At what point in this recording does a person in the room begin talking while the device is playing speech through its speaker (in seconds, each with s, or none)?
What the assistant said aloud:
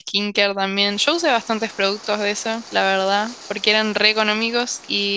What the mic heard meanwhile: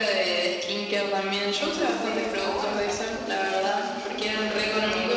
1.5 s